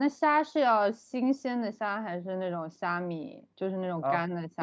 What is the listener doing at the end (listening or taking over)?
taking over